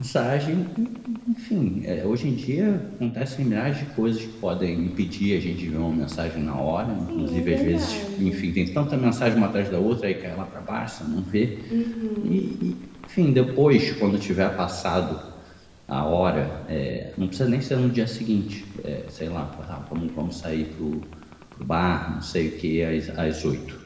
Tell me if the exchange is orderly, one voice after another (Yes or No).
No